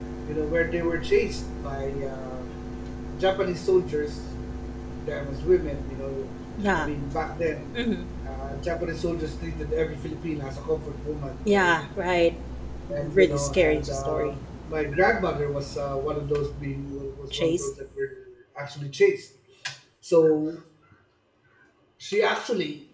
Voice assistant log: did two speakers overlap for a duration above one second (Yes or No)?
Yes